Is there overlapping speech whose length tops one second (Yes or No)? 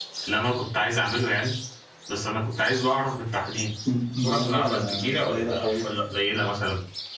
Yes